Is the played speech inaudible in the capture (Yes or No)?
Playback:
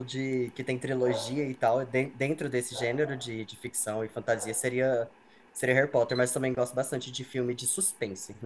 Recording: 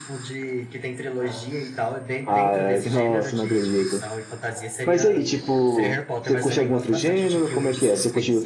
No